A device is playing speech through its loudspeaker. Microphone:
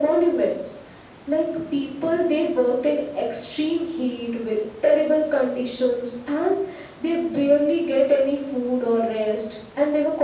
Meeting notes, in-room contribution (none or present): none